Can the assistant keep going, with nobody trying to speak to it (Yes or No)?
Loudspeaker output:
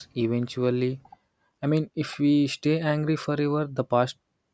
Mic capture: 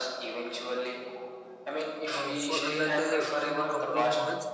No